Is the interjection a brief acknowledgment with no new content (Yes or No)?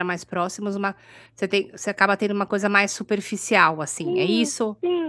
No